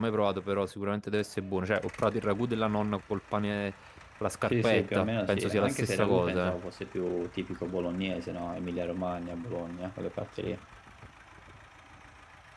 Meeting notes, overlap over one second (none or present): present